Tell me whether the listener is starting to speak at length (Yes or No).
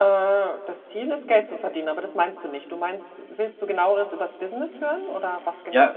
Yes